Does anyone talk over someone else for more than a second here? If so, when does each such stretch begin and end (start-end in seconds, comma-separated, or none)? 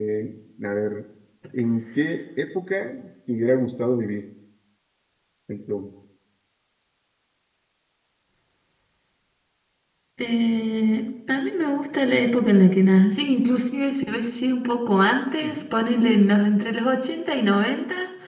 none